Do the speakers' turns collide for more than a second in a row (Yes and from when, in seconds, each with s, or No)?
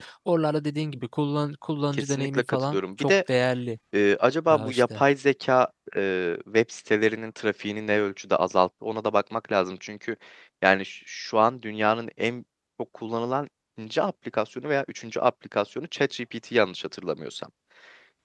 Yes, from 1.9 s